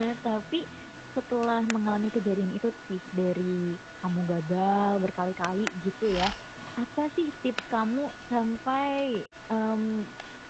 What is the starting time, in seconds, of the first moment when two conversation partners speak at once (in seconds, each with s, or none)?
none